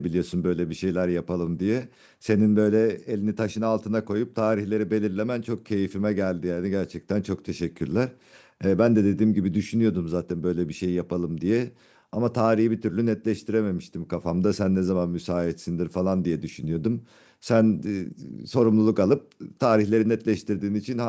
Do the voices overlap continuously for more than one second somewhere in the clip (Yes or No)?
No